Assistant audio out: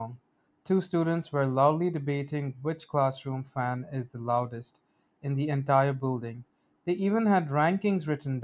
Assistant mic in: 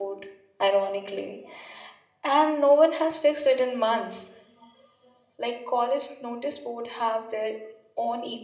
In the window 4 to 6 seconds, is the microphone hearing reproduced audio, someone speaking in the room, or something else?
user only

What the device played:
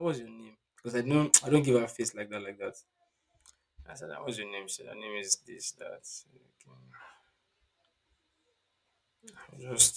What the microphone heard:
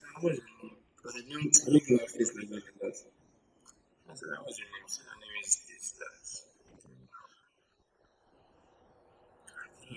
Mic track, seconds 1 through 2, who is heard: echo only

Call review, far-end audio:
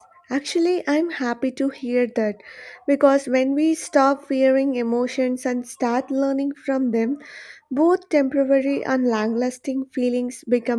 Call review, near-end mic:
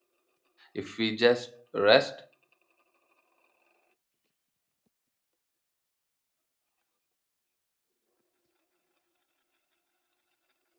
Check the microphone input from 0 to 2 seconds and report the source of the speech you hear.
user only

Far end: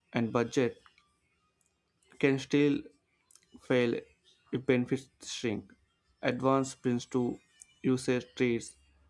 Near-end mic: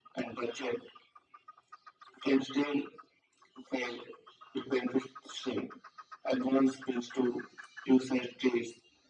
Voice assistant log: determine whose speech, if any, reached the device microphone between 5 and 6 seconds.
echo only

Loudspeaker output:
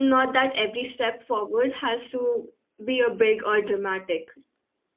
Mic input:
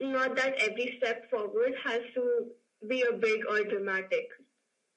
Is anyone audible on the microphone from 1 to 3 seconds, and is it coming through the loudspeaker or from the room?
echo only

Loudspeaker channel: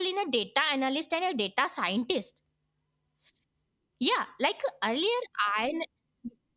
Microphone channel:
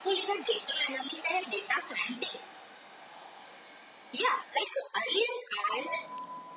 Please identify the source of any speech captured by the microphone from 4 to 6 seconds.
echo only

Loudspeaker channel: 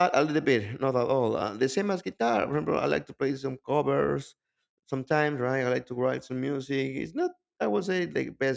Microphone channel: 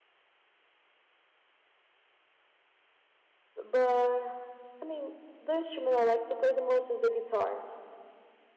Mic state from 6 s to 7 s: user only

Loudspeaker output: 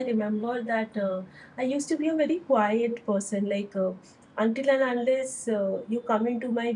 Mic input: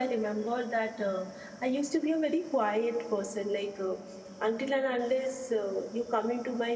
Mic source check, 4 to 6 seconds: echo only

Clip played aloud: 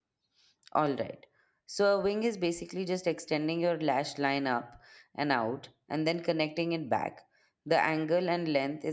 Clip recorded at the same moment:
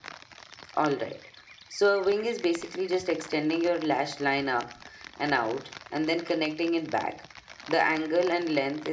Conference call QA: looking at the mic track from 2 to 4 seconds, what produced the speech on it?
echo only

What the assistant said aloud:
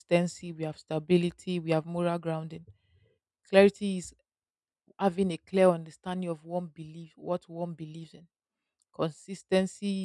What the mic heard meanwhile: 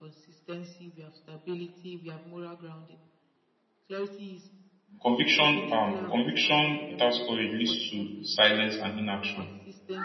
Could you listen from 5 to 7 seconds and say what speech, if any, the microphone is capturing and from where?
both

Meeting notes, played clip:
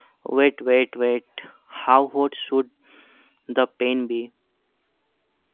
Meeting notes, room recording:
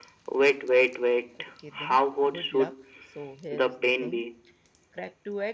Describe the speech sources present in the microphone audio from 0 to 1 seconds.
echo only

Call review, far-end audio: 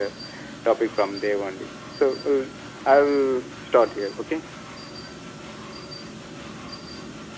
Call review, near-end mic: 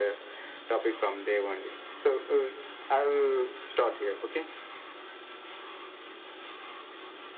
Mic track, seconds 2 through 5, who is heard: echo only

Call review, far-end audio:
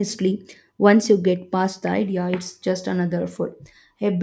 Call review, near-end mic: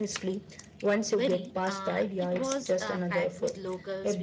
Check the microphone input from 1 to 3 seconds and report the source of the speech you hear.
both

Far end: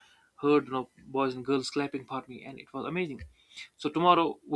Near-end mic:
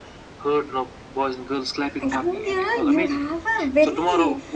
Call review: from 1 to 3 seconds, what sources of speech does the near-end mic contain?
both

